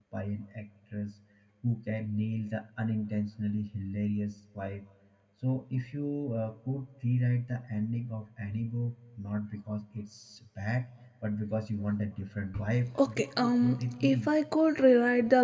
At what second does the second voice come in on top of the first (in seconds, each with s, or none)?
12.9 s